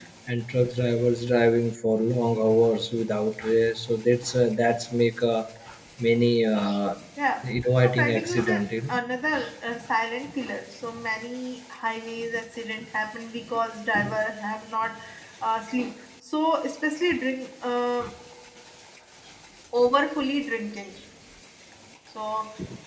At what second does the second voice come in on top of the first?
7.4 s

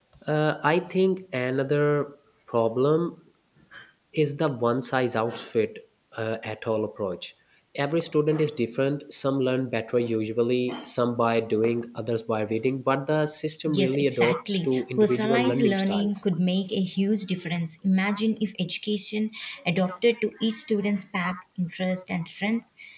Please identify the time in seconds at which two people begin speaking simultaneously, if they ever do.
13.6 s

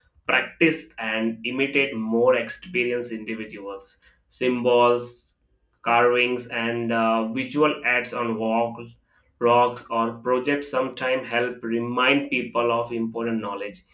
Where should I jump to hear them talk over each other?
none

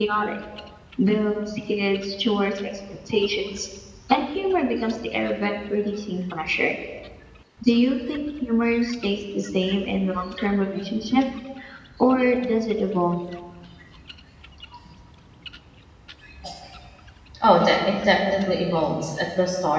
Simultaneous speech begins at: none

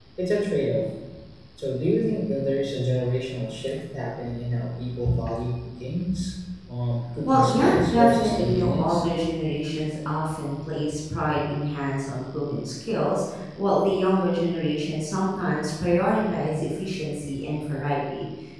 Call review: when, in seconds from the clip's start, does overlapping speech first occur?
7.2 s

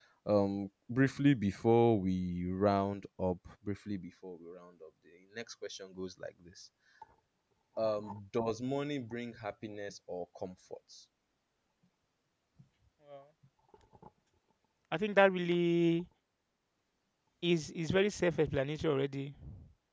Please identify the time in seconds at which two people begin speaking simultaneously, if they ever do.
none

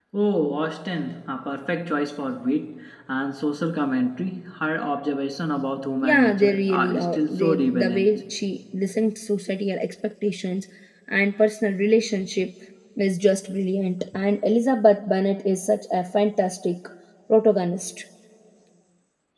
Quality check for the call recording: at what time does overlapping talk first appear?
6.0 s

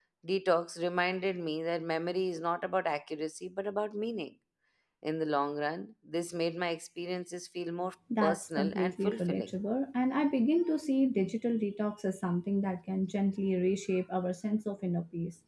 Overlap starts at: 8.1 s

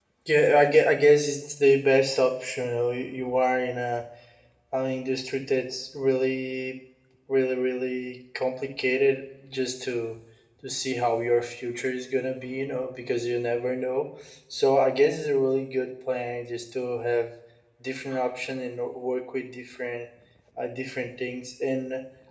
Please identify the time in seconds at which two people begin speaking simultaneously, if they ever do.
none

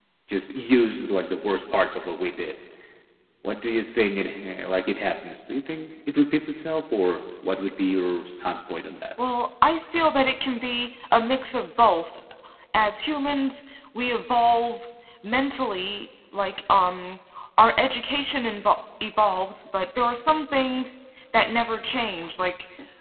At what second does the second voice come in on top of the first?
none

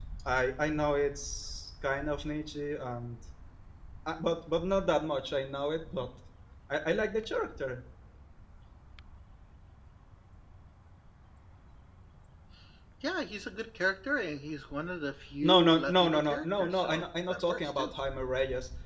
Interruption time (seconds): 15.4 s

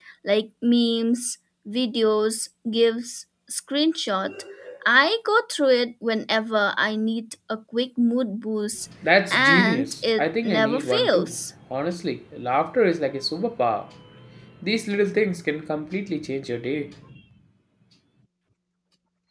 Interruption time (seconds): 9.3 s

